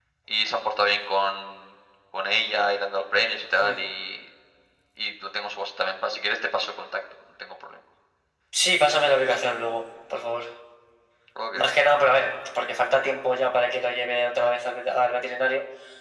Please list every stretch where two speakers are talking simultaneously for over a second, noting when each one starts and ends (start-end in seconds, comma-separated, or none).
none